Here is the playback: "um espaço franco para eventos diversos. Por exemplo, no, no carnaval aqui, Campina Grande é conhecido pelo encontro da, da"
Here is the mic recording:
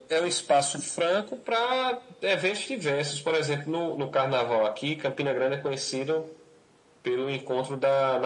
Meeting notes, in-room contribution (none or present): none